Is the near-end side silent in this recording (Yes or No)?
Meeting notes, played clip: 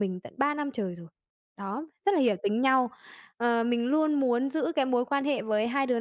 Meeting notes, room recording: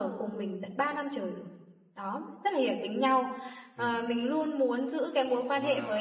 No